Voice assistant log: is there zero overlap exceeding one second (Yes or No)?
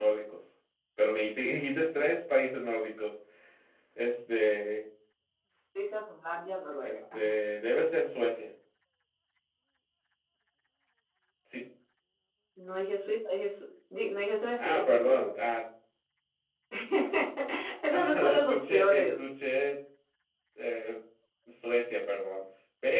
No